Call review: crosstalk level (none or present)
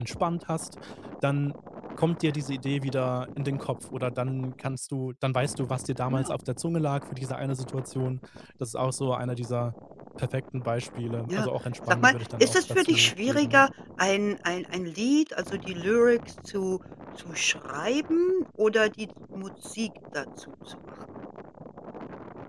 present